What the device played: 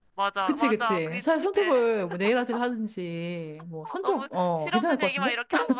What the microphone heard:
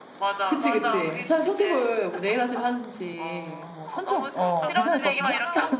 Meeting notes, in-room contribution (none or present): present